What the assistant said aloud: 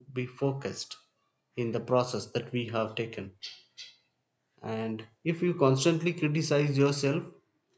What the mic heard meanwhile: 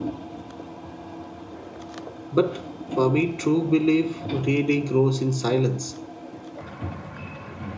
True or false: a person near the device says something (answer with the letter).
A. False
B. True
B